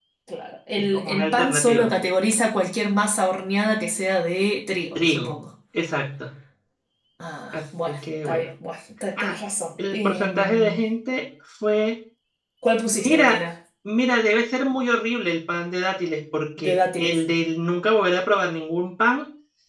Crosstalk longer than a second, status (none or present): present